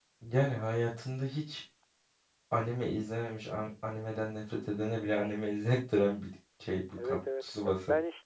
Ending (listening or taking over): taking over